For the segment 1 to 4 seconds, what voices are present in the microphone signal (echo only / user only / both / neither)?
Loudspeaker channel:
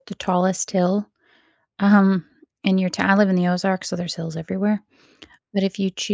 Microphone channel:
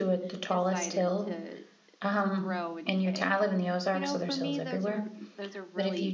both